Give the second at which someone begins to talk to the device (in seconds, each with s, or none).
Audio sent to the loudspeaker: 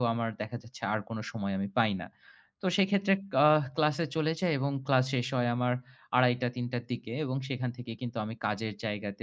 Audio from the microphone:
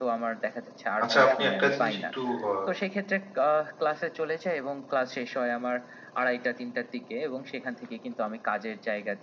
1.0 s